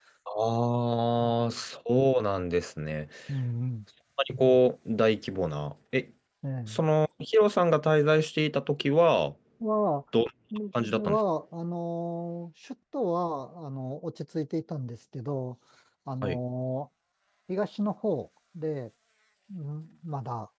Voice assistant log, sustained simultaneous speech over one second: none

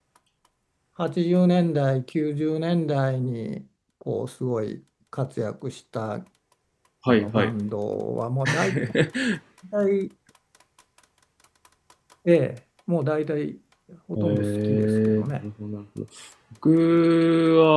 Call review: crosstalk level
present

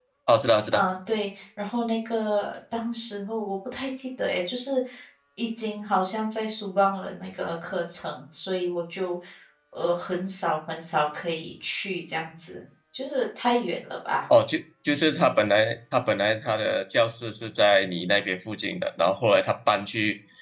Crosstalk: none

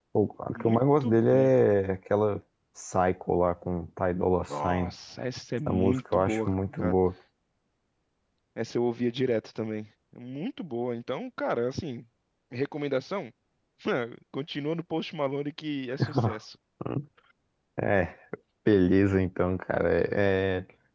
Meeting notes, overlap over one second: present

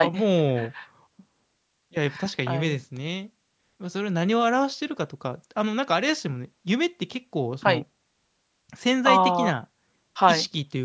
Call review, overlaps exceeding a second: none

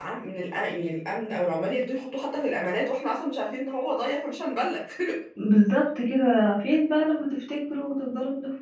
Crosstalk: none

